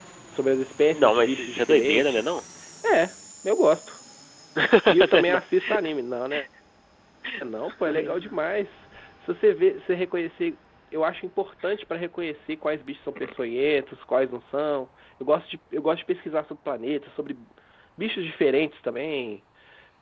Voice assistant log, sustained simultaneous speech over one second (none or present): present